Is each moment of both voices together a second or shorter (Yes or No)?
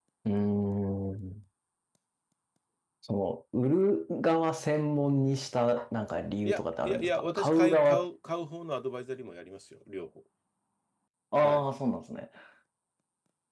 No